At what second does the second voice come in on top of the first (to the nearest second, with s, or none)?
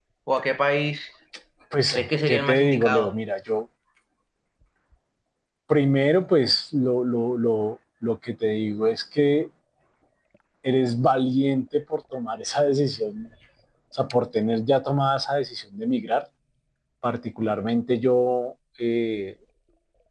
2 s